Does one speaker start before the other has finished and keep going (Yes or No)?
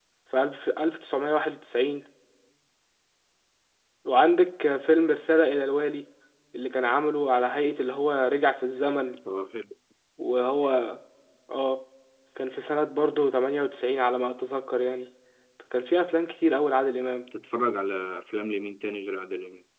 No